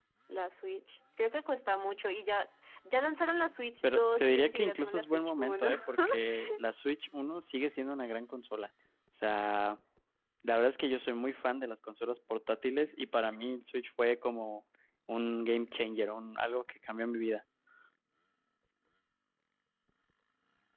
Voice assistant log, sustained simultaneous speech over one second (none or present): present